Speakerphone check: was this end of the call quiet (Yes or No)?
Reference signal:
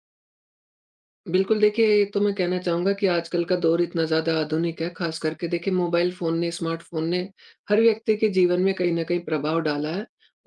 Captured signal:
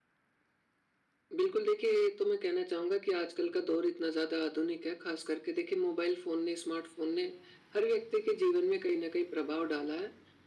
Yes